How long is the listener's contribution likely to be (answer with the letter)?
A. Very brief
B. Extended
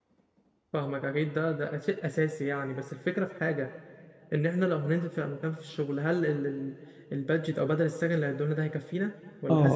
B